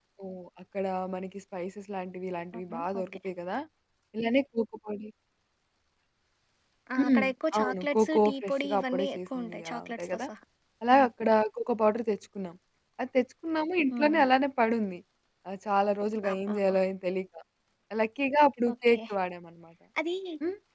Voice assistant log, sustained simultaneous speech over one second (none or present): present